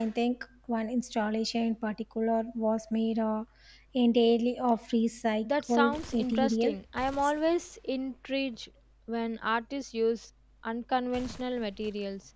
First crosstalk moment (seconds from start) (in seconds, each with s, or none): 5.4 s